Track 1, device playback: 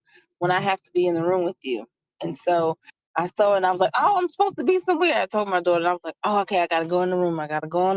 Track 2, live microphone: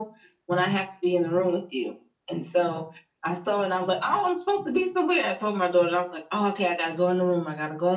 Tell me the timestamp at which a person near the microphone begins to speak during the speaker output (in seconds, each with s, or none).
none